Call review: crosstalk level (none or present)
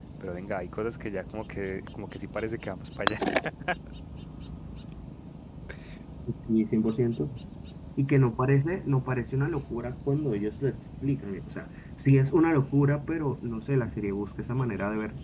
none